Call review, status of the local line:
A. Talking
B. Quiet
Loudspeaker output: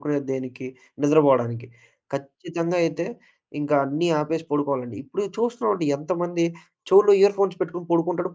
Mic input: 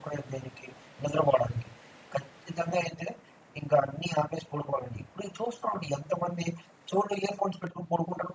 B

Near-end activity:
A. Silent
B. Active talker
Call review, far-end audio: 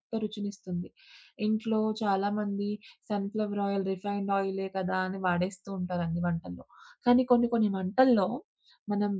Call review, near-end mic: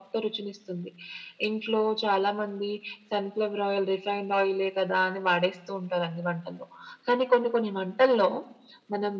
A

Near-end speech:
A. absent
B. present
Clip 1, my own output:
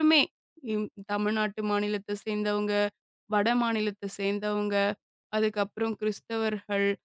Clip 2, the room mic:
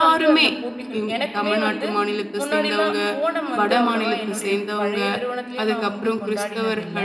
B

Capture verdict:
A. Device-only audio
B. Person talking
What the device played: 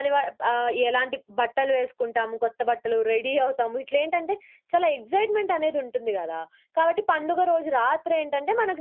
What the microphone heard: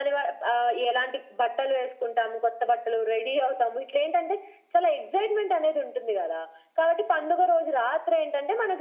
A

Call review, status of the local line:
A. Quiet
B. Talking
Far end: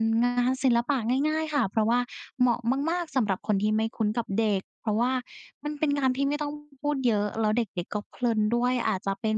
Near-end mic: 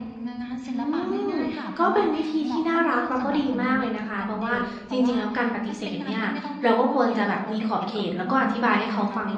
B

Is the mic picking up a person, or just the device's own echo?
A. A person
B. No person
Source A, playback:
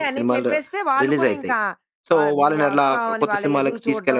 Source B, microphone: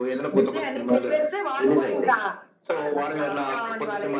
B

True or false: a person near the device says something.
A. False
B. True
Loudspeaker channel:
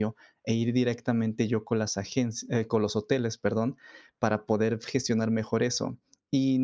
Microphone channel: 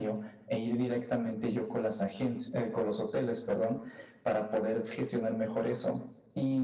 A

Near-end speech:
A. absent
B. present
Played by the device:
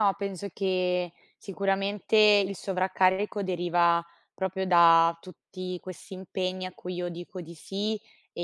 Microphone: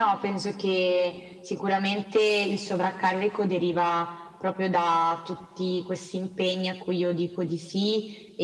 A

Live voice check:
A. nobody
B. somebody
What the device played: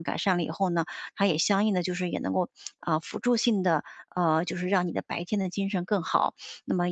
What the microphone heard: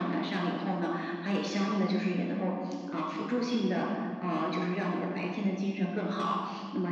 A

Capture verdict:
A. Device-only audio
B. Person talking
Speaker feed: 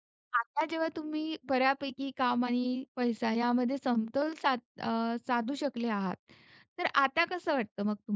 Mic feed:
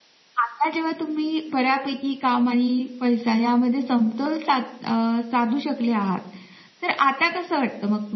A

